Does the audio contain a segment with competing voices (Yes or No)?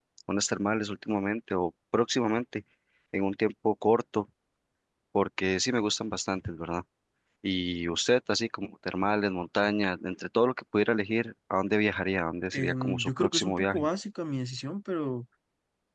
Yes